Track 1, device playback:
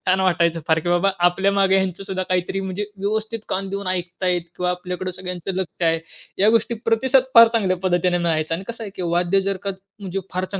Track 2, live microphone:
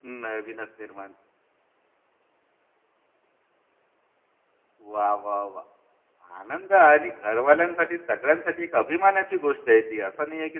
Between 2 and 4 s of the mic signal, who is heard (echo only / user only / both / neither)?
neither